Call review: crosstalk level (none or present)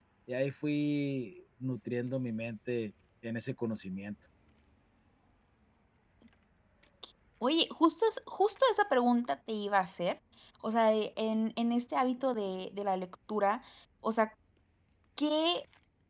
none